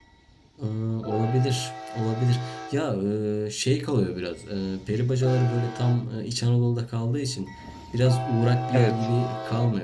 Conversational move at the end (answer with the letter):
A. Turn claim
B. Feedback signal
B